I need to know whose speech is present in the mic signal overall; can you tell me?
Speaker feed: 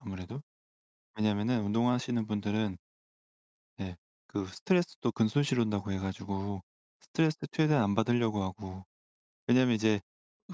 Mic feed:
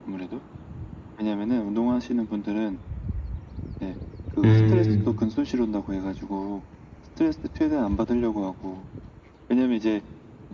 both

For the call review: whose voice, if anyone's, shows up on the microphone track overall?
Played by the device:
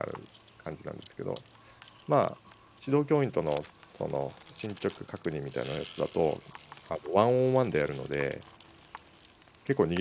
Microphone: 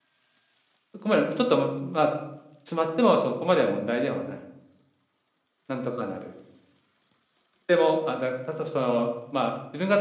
user only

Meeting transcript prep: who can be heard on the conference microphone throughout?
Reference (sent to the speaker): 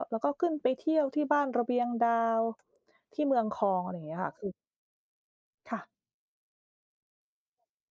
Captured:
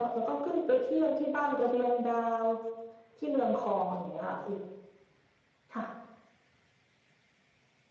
echo only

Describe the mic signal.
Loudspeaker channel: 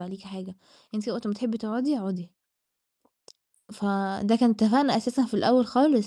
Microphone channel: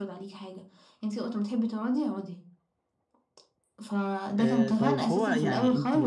both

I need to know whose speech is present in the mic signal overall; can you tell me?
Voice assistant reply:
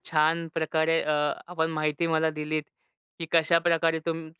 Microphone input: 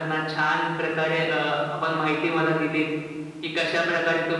echo only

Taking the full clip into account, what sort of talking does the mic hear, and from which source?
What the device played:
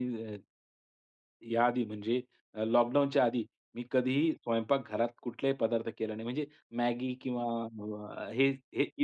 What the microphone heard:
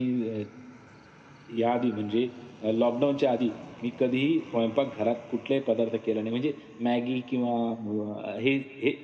echo only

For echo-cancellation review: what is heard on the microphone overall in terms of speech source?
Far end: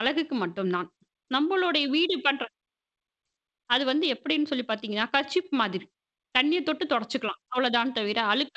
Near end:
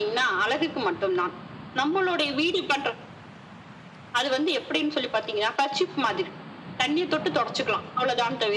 echo only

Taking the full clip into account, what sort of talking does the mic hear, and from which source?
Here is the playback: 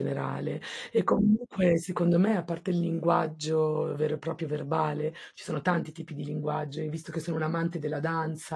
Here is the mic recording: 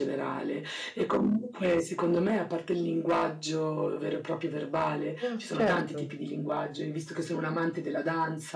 both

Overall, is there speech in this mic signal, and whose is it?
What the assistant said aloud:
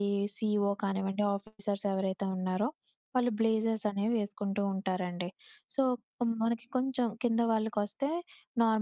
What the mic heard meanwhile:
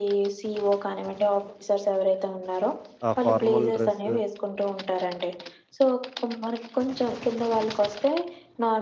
both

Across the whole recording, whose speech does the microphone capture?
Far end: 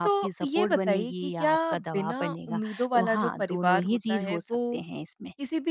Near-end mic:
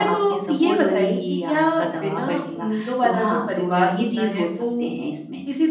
echo only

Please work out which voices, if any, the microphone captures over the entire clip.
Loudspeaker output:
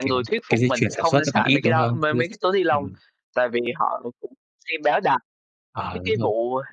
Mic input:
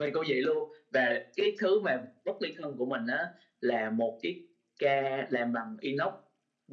user only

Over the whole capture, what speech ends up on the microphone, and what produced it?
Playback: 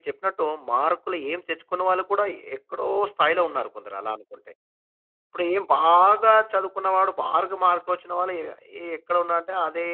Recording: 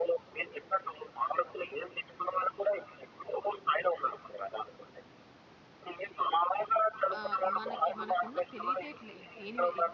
both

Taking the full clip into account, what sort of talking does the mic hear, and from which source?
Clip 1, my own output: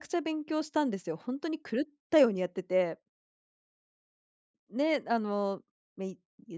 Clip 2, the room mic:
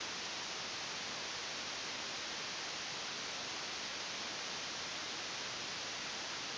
neither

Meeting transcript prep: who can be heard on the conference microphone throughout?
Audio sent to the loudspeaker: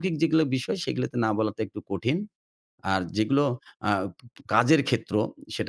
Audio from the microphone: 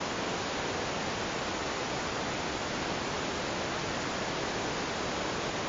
neither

